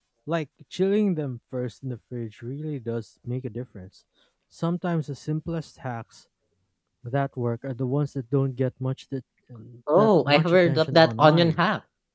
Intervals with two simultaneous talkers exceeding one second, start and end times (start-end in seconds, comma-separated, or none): 10.0-11.6